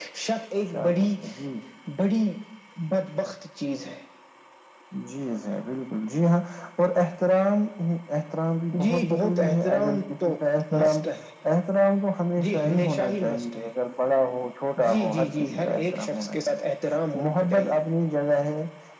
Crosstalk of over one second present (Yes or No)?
Yes